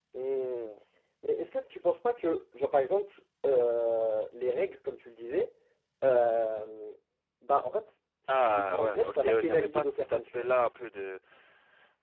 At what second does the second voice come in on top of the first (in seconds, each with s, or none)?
8.3 s